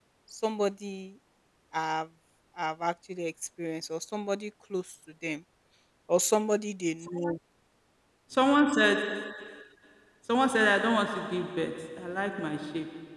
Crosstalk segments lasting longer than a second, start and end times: none

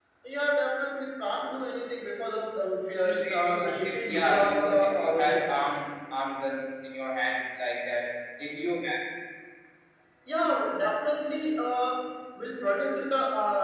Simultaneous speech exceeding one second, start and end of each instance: 3.0-5.5

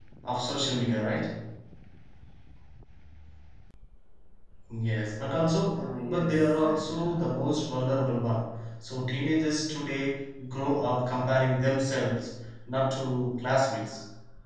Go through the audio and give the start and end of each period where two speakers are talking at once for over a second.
5.8-7.3

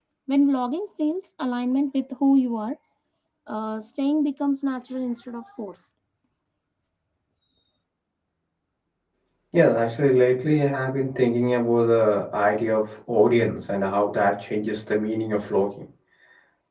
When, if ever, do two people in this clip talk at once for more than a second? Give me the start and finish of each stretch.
none

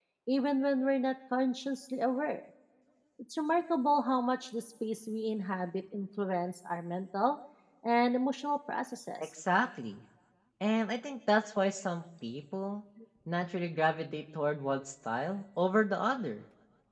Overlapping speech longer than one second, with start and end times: none

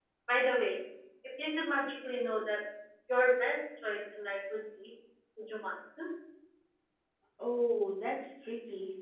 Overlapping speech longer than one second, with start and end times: none

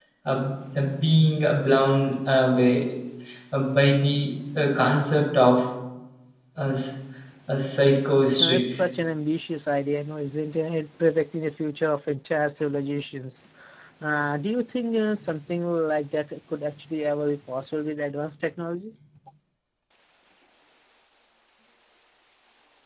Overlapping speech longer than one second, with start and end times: none

